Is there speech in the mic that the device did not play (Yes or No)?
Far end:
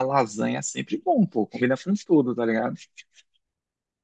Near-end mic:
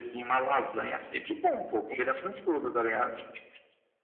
No